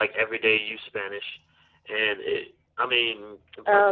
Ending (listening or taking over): listening